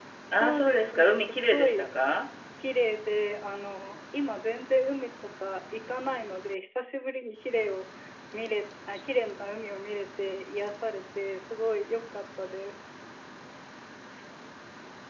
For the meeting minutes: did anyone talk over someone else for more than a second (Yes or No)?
Yes